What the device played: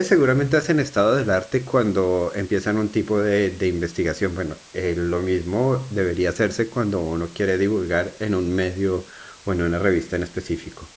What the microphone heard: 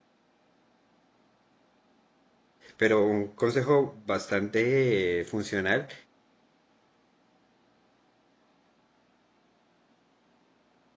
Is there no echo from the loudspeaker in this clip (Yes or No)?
Yes